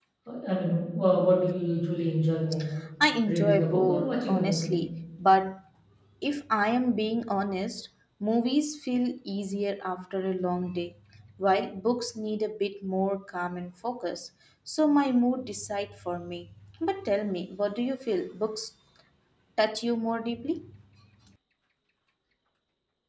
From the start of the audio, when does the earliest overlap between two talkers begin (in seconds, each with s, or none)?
3.3 s